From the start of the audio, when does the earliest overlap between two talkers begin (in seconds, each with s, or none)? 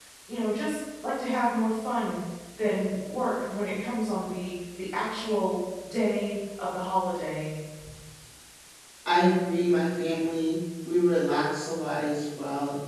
none